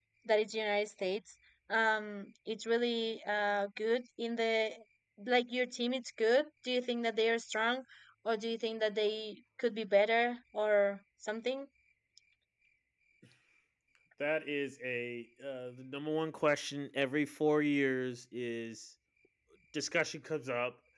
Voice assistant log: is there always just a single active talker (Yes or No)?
Yes